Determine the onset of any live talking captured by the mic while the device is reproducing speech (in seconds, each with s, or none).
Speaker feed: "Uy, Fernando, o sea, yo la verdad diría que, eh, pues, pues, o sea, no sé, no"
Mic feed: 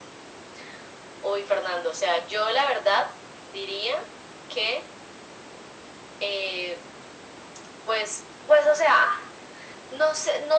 none